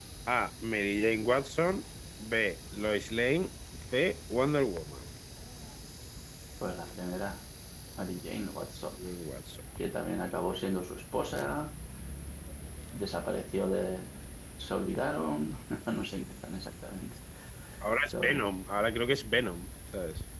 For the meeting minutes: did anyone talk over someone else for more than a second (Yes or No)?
No